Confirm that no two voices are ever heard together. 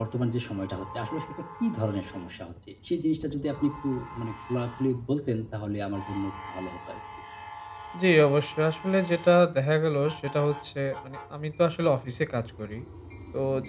Yes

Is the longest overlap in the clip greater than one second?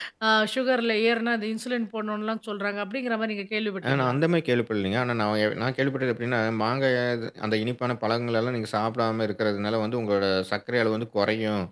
No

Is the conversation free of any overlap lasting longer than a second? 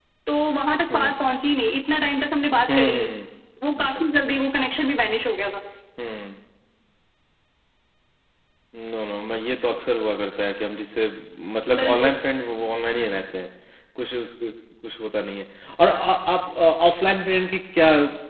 Yes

